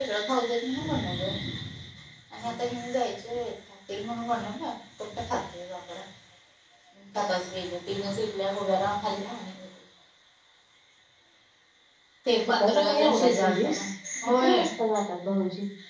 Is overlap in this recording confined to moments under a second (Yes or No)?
No